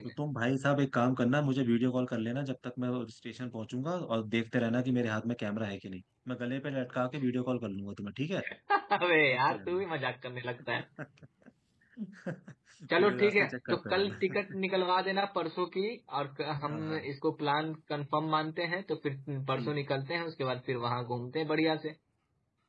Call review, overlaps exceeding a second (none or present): present